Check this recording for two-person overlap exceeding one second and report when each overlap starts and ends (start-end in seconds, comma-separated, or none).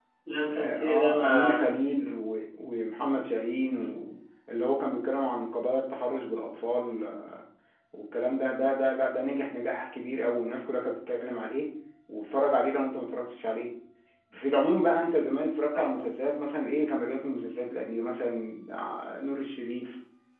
0.5-1.8